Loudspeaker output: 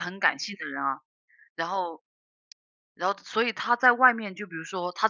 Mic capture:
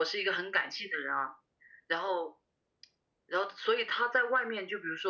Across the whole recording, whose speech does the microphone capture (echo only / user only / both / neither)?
echo only